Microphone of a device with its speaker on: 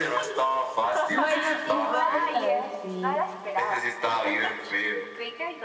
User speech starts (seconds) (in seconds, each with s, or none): 1.1 s